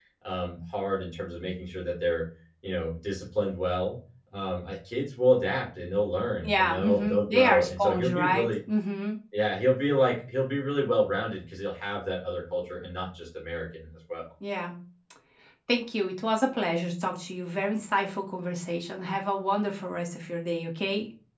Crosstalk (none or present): present